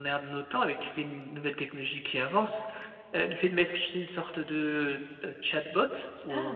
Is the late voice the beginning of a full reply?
No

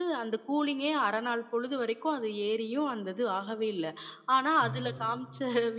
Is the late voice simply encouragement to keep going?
Yes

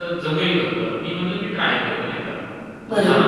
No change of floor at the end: Yes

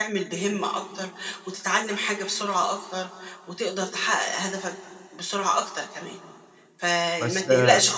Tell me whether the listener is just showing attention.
Yes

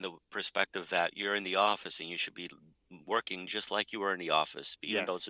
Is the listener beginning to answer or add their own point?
No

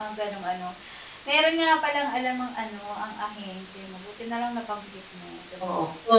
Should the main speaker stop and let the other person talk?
Yes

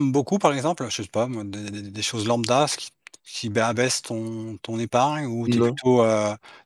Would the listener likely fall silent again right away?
Yes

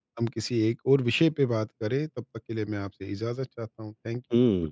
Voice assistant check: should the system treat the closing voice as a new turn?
Yes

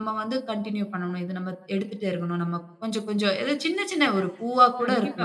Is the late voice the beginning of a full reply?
Yes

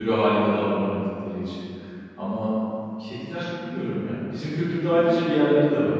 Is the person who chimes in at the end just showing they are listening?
Yes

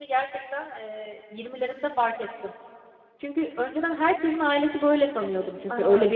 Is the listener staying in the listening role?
No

